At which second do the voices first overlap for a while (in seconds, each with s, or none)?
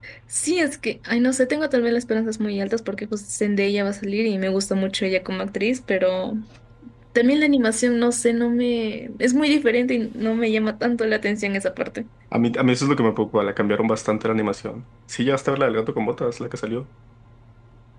none